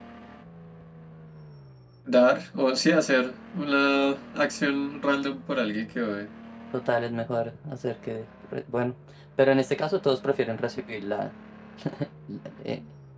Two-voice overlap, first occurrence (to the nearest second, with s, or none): none